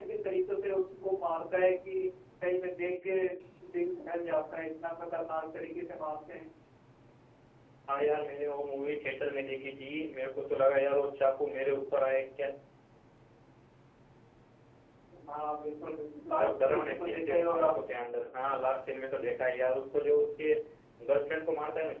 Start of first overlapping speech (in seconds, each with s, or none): 16.4 s